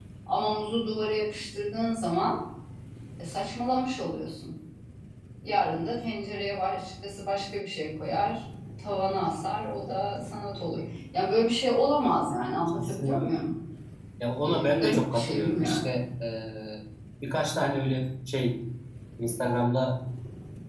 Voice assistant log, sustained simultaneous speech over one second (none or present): present